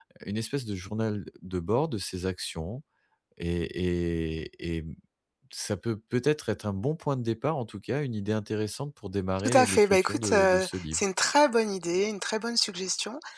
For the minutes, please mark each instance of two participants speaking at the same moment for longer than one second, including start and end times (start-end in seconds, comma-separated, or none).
9.4-11.0